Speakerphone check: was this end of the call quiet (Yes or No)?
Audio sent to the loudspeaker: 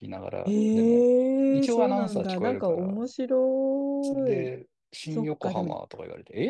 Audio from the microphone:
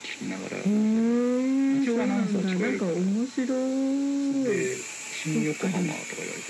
Yes